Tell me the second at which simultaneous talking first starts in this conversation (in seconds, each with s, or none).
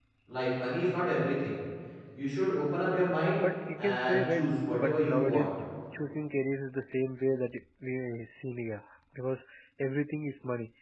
3.8 s